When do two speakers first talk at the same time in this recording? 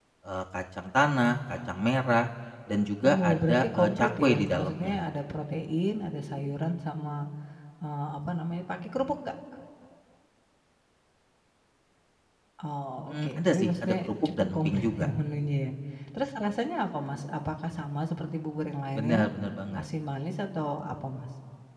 3 s

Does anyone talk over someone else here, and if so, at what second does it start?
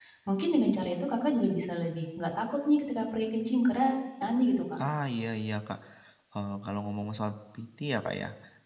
none

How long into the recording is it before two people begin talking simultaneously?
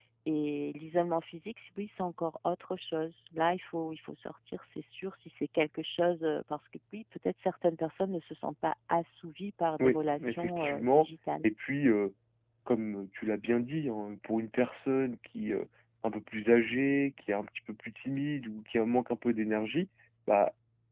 10 s

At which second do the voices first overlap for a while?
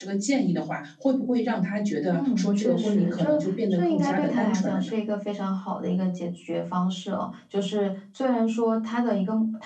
2 s

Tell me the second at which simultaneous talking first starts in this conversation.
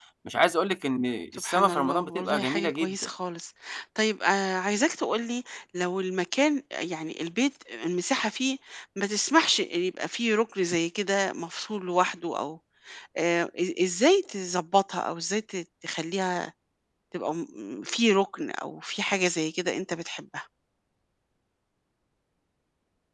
1 s

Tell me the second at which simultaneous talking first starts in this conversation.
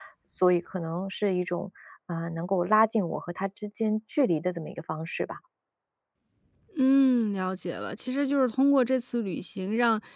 none

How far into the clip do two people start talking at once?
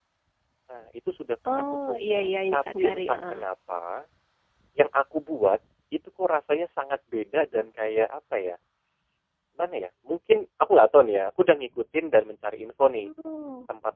2 s

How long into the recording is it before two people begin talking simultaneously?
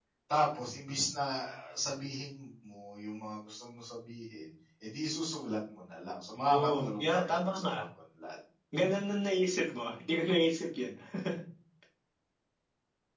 6 s

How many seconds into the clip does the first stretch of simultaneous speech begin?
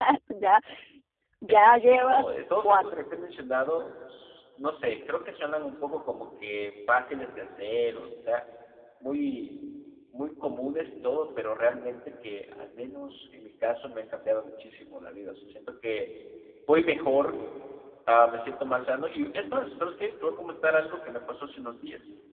1 s

